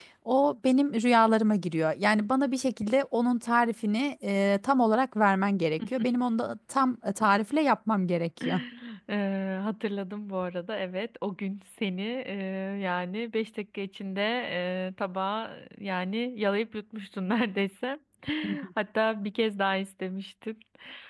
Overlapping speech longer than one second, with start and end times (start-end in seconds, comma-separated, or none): none